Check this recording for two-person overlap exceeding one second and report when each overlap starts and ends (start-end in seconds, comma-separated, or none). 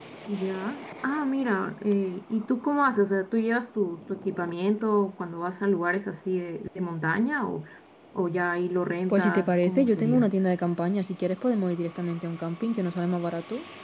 9.1-10.3